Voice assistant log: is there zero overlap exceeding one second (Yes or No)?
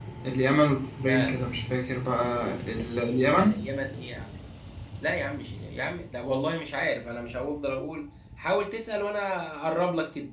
Yes